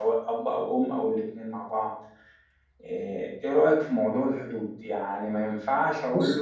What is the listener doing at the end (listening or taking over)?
listening